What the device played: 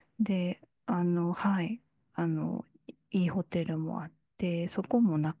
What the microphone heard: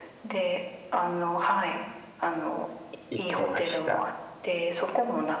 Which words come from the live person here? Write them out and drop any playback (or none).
行きました。